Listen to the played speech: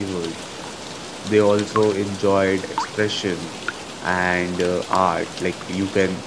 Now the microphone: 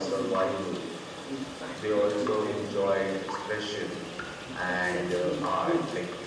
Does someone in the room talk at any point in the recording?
Yes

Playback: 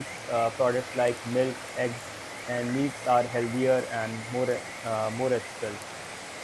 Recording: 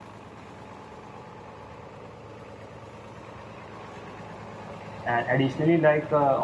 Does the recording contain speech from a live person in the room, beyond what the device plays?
Yes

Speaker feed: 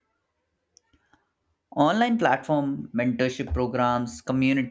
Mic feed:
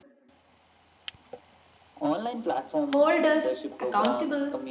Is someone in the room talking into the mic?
Yes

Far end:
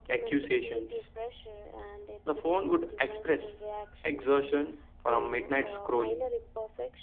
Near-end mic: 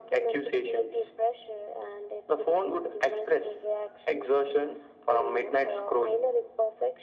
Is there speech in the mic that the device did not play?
No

